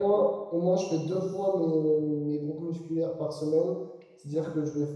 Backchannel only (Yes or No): Yes